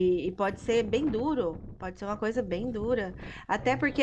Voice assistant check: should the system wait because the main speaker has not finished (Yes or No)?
Yes